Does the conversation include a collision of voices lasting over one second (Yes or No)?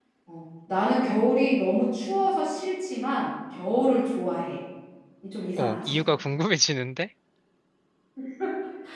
No